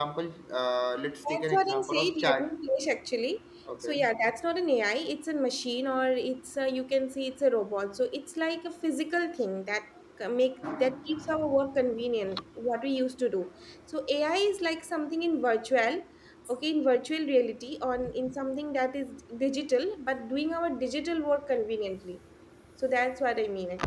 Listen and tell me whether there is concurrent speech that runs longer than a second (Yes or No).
Yes